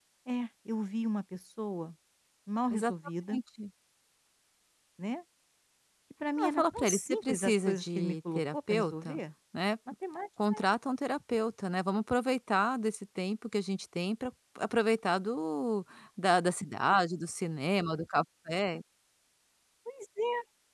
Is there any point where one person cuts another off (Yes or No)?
Yes